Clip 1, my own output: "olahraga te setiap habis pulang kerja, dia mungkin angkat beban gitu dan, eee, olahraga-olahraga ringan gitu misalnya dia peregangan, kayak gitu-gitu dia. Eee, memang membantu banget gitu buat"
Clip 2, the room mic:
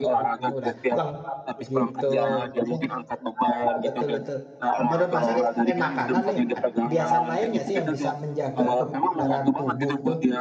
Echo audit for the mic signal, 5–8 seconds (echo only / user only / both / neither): both